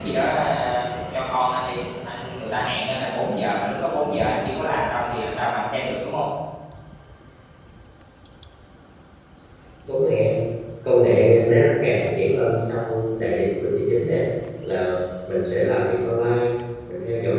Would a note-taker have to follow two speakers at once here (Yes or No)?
No